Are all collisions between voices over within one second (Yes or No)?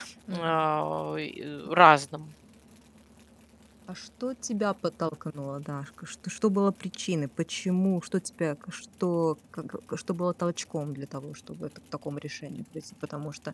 Yes